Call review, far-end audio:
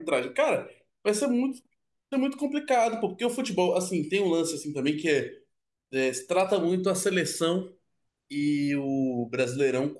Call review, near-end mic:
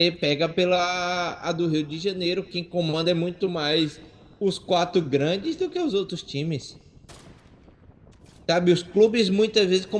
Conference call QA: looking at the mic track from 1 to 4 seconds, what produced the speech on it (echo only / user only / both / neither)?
user only